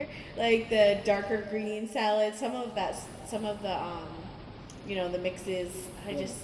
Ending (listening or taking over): listening